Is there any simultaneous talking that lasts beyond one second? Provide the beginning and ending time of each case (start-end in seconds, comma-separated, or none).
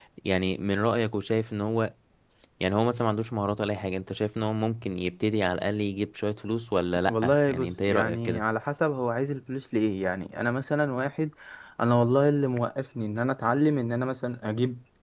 7.1-8.4